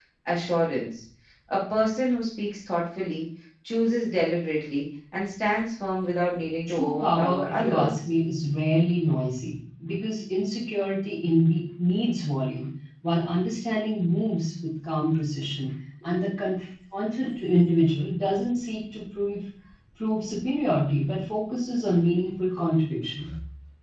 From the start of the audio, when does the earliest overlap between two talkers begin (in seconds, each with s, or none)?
6.7 s